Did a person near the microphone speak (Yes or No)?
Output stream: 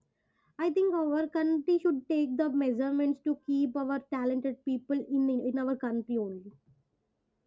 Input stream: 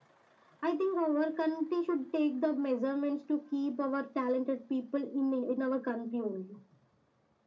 No